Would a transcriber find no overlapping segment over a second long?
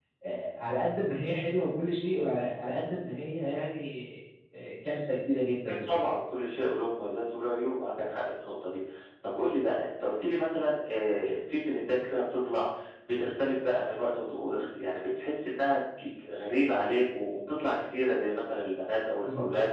Yes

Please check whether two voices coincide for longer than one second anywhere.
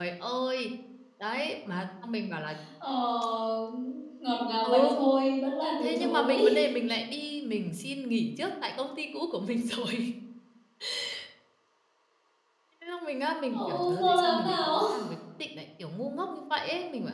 Yes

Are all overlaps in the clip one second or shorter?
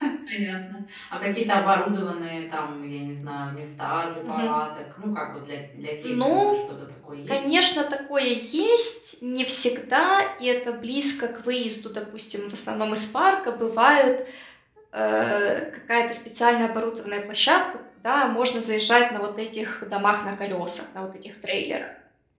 Yes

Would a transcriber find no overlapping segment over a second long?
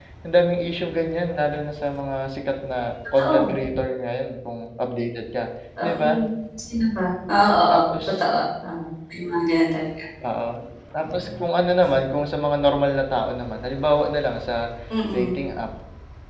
Yes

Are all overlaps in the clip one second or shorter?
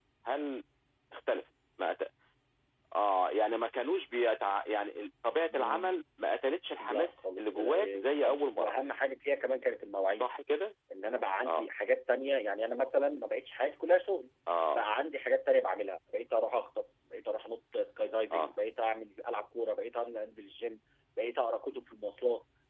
No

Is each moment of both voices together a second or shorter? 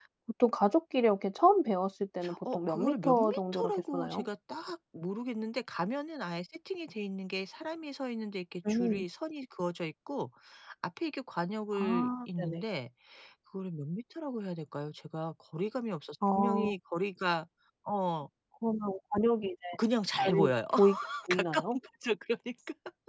No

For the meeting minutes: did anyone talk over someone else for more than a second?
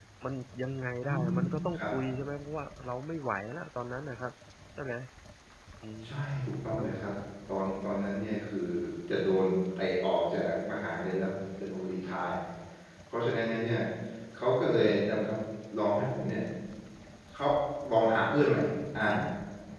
No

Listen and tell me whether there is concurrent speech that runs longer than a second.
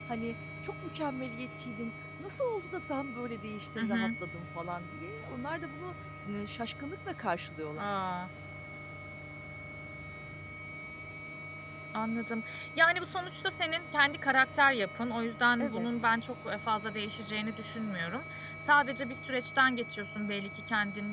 No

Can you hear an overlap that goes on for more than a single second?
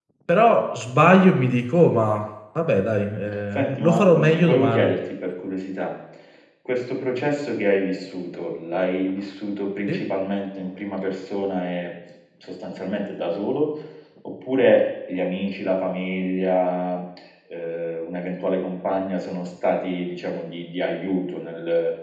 Yes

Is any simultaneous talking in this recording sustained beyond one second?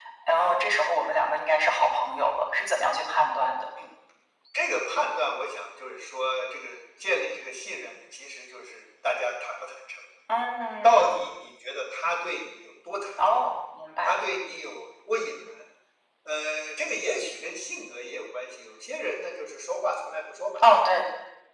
No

